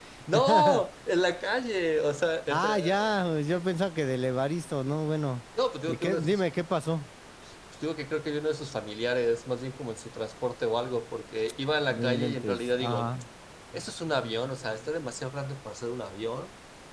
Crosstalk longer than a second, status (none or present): present